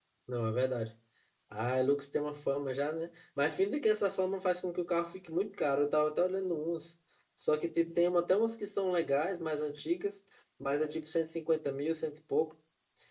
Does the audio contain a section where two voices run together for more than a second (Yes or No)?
No